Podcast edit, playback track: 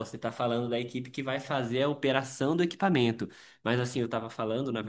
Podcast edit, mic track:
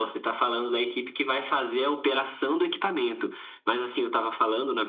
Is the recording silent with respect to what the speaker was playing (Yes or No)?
No